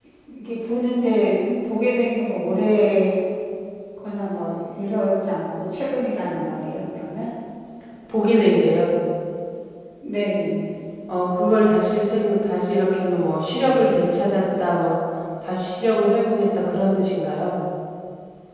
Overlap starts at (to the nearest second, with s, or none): none